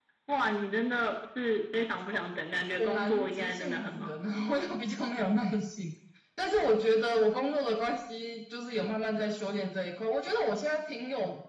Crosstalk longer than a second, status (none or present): present